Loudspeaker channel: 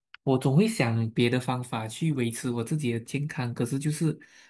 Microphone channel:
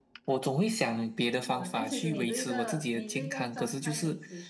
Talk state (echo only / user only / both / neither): both